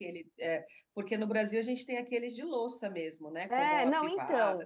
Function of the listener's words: taking over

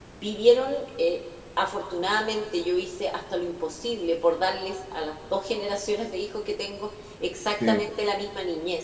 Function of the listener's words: listening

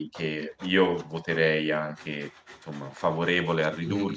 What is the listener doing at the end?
taking over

